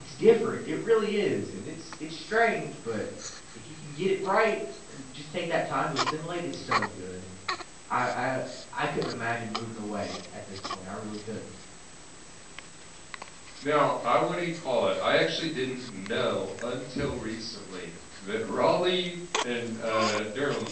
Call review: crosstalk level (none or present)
none